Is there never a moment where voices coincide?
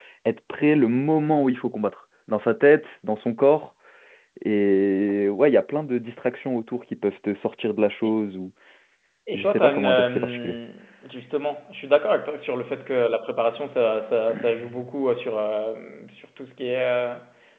No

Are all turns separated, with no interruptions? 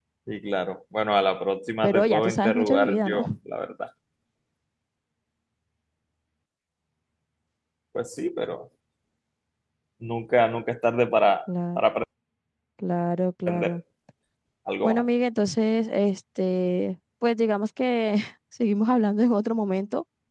No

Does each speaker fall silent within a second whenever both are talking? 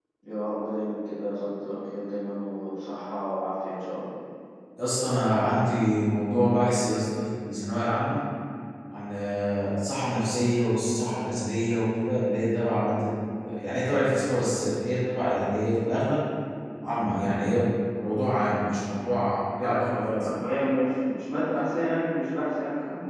Yes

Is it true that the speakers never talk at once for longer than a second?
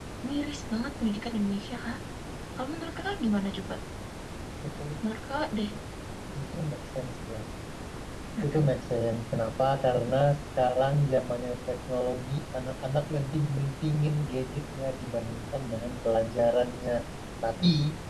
Yes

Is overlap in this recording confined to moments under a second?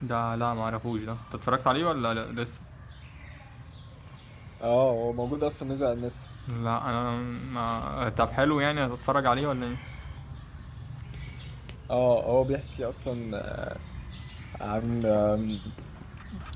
Yes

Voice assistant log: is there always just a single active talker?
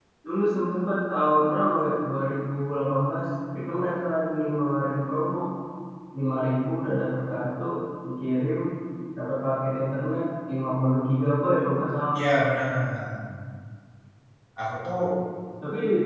Yes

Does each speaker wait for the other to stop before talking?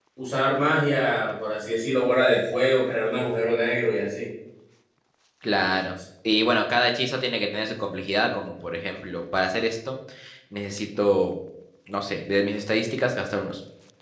Yes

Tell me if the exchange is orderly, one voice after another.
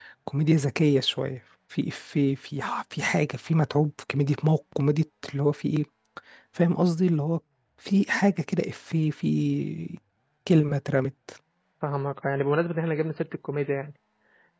Yes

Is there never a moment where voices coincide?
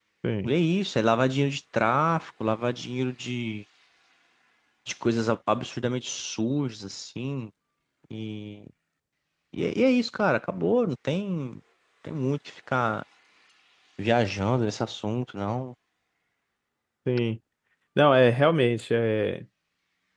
Yes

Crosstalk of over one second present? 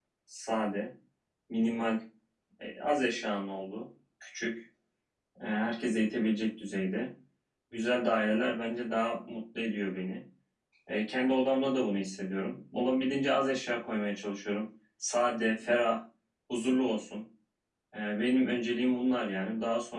No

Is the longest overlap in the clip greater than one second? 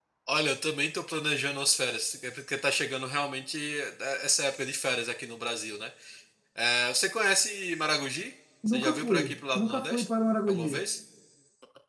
Yes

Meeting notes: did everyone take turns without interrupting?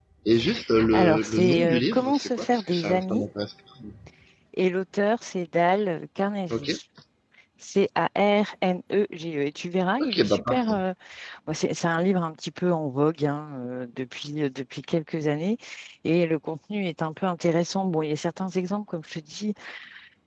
No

